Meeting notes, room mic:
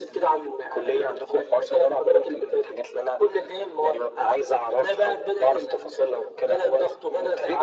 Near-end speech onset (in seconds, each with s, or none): none